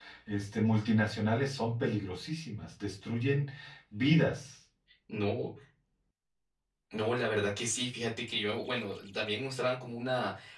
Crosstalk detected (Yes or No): No